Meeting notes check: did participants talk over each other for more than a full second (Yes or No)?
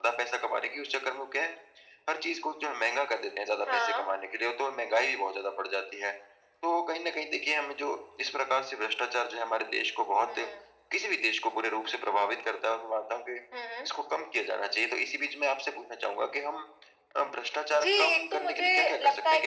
Yes